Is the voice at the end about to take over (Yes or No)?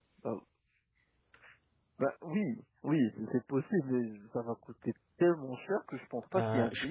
Yes